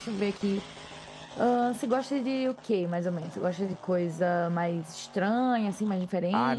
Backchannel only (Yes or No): No